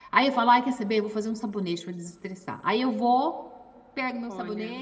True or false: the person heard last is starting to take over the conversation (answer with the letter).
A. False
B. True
A